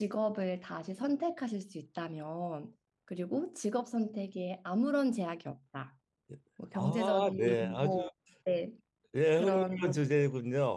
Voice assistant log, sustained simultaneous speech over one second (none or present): present